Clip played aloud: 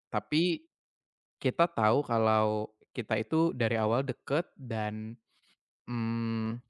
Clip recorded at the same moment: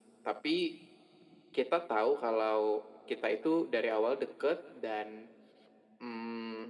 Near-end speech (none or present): none